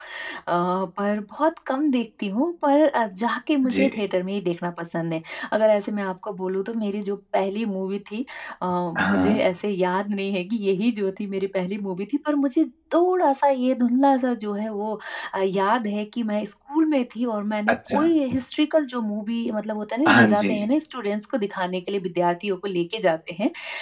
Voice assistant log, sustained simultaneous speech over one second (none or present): none